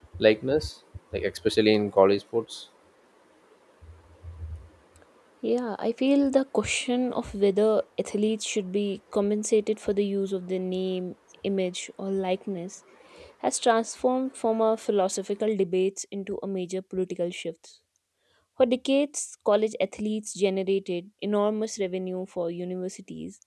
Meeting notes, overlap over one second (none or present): none